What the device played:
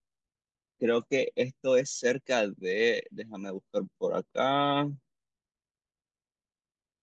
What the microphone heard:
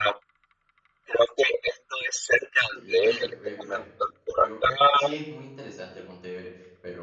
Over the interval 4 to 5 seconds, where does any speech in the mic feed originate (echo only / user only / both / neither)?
both